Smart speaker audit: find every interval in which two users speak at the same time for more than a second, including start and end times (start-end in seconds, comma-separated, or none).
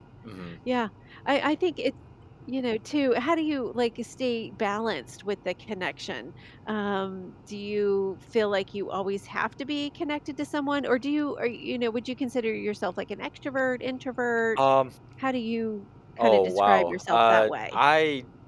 16.2-17.8